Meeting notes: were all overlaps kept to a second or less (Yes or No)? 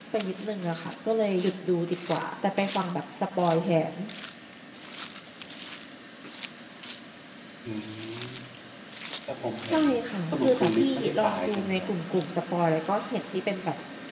No